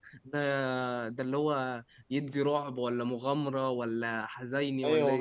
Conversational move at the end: taking over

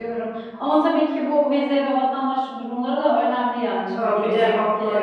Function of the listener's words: taking over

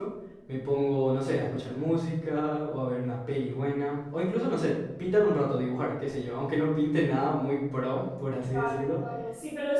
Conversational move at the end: taking over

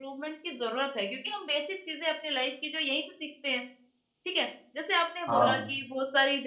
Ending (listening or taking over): listening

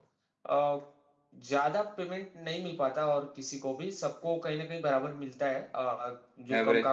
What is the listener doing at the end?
listening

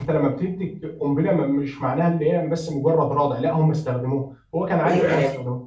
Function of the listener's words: taking over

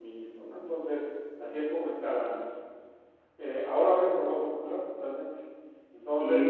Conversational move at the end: listening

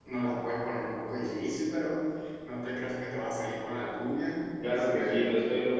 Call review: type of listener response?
taking over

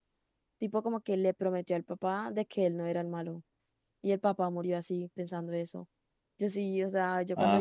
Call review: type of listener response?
listening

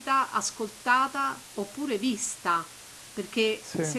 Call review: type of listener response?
listening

